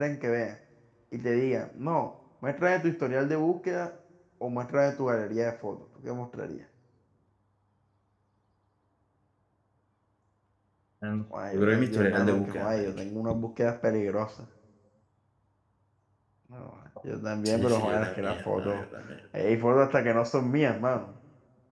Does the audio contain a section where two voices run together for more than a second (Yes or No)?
Yes